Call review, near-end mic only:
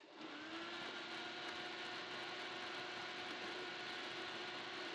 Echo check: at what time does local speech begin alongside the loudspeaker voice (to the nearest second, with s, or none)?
none